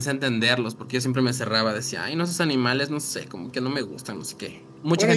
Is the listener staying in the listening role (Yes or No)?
No